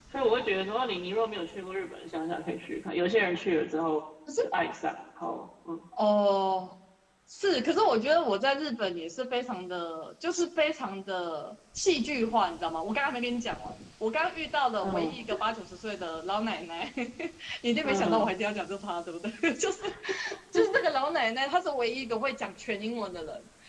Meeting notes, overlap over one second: none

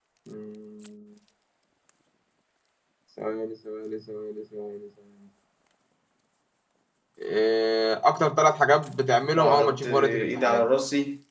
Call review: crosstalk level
present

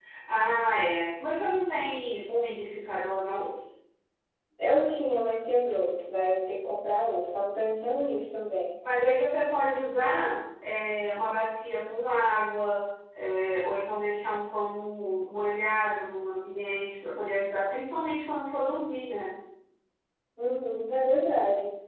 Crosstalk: none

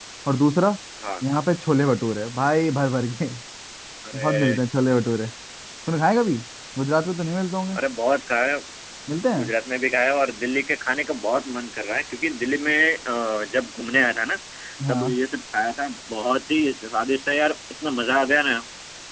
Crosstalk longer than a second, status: none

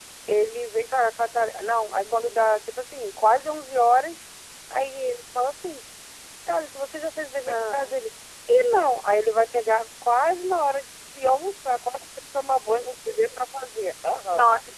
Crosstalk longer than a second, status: none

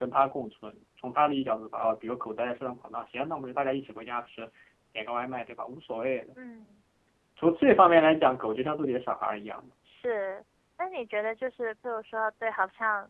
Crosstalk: none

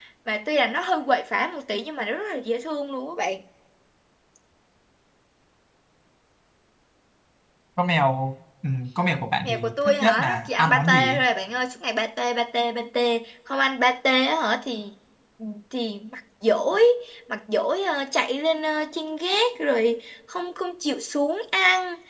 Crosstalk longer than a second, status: present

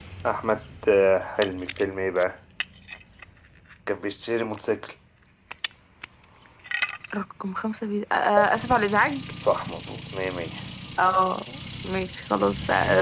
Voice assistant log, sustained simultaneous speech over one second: none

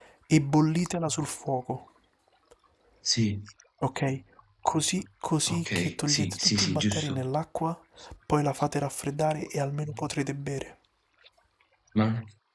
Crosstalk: present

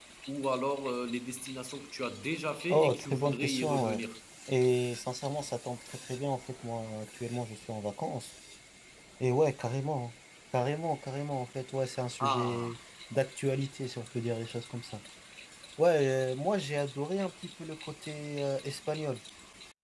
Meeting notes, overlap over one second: present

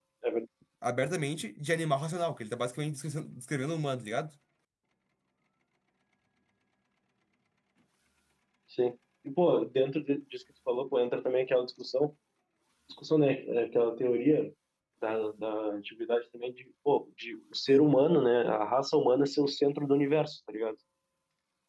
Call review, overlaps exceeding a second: none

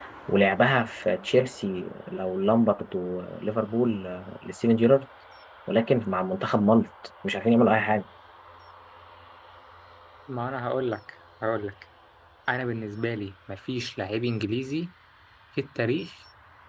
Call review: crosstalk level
none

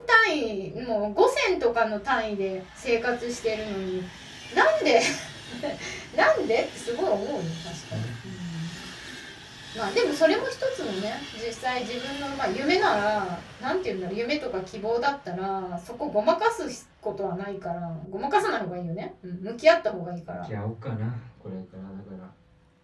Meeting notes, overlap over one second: none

